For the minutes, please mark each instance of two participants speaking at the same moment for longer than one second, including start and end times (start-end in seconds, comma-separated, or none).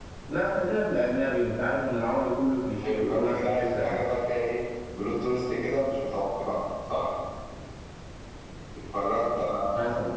2.8-4.0